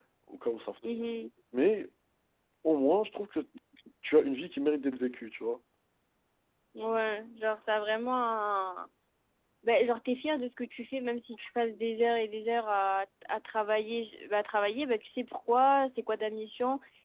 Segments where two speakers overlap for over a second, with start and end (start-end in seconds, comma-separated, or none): none